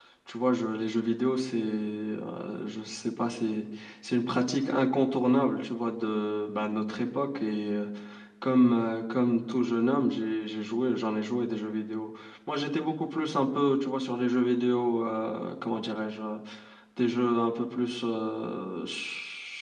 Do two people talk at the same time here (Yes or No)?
No